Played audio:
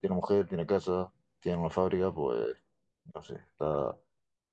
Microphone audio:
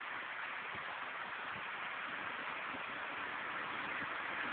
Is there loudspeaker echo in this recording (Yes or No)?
No